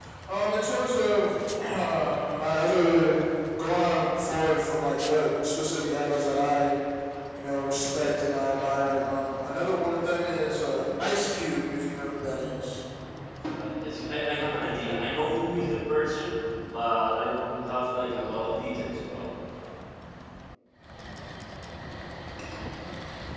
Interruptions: none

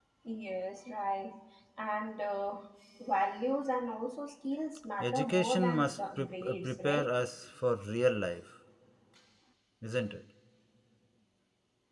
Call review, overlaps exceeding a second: present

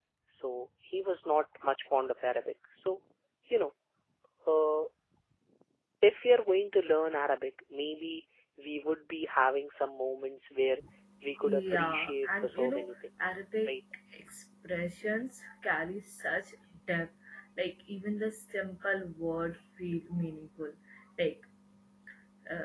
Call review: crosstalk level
present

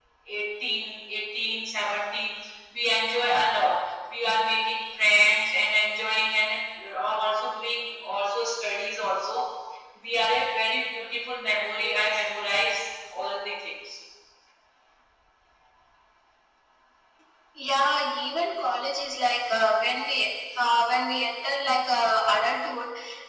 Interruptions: none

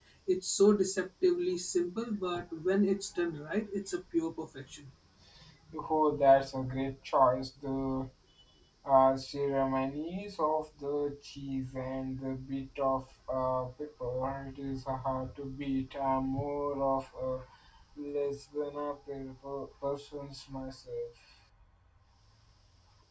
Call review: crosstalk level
none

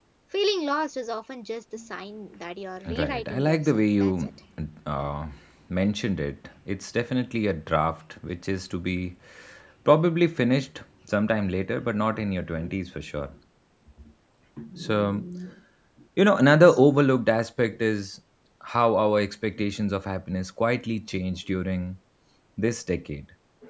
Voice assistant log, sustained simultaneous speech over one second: present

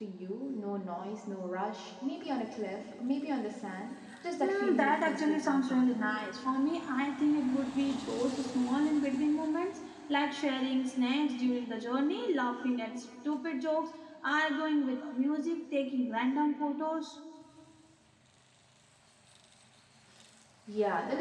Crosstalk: present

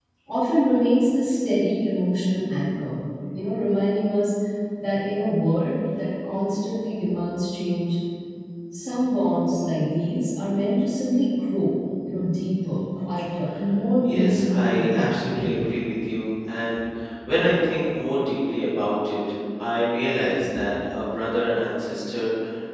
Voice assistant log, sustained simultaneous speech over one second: present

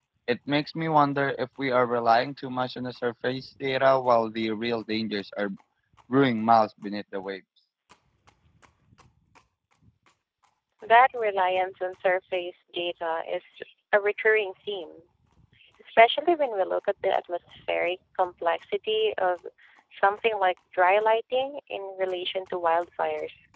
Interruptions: none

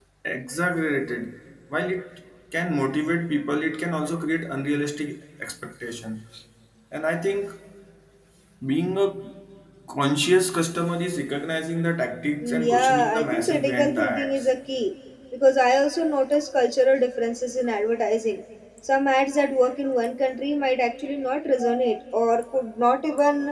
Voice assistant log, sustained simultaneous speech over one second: present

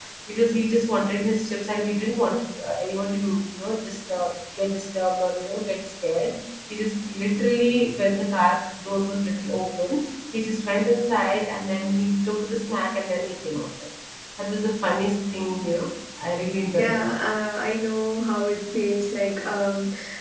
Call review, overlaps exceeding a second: none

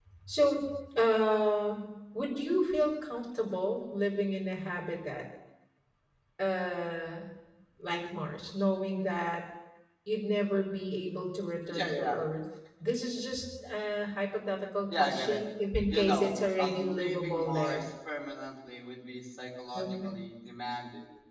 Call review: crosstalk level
present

